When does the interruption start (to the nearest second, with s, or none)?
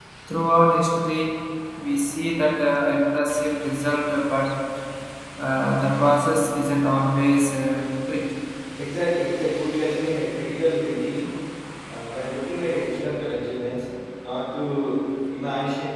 none